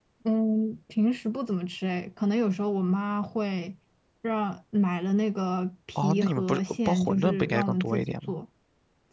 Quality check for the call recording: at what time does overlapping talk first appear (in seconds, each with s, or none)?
6.0 s